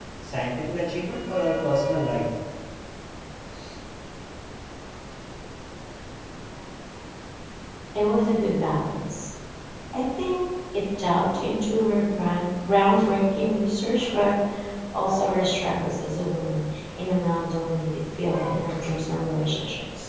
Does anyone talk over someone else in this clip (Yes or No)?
No